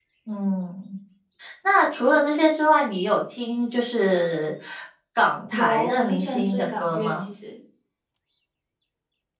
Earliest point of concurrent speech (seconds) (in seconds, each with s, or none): 5.5 s